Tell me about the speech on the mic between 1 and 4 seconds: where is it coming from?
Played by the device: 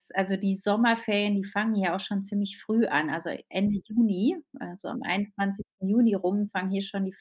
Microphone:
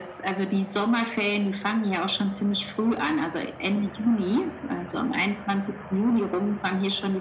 echo only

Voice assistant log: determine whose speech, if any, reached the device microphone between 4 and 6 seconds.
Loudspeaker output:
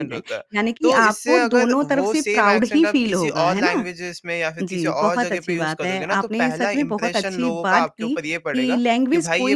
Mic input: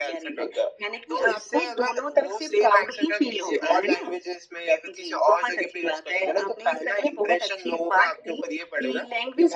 echo only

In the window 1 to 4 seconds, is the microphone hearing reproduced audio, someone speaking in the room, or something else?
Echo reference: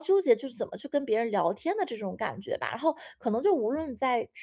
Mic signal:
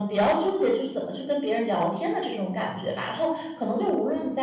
echo only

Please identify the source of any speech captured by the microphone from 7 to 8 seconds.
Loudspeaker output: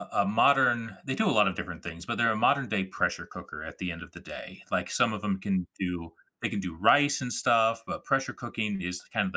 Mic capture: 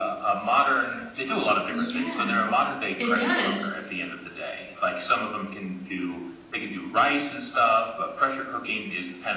echo only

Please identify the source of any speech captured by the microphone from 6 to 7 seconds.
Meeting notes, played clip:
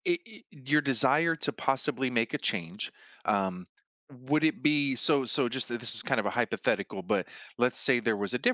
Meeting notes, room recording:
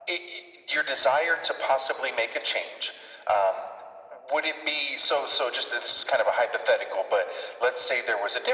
echo only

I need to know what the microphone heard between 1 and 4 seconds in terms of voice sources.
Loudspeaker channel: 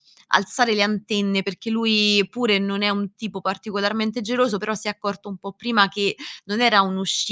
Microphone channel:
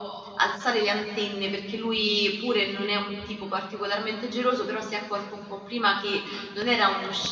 echo only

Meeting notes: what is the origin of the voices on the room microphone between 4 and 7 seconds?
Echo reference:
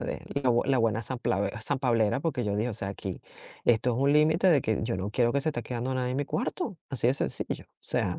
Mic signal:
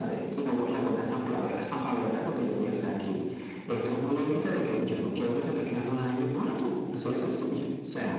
echo only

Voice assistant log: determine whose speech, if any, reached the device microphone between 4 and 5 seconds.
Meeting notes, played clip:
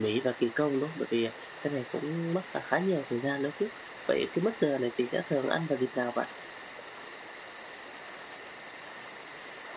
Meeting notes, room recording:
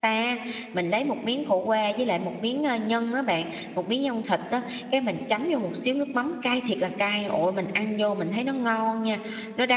user only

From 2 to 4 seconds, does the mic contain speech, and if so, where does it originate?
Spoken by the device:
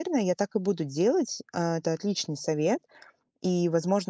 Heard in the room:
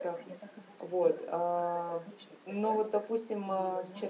both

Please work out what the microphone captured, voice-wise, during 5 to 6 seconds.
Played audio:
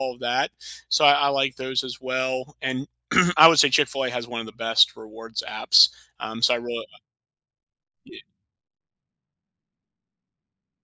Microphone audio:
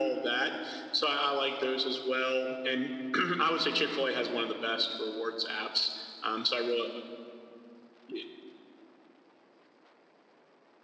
echo only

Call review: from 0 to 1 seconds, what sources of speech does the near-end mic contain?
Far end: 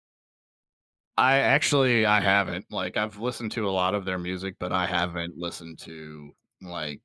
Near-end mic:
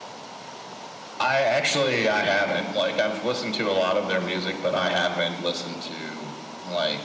neither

